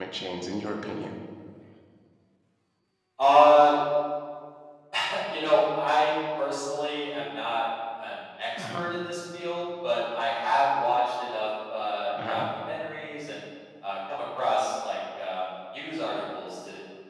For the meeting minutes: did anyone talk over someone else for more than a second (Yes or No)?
No